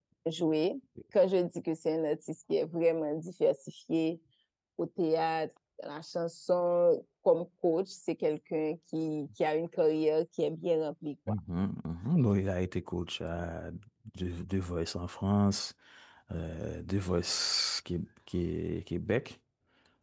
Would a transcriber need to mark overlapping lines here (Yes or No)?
No